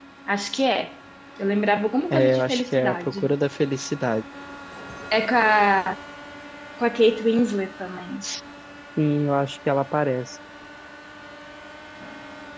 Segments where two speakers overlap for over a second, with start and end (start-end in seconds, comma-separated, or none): 2.1-3.3